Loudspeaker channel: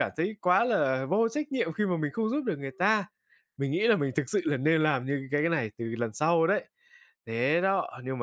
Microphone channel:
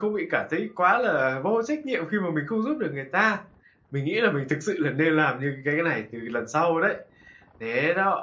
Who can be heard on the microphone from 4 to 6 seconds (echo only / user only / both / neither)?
echo only